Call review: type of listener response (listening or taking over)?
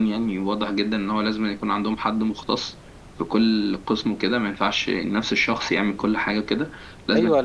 taking over